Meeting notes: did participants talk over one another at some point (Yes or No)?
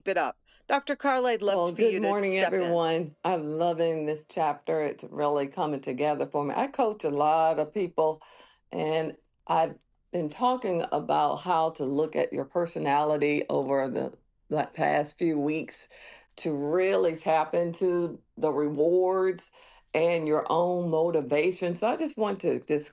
Yes